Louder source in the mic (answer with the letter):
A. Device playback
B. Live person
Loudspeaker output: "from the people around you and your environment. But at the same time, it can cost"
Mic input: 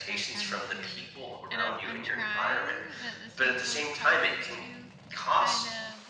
A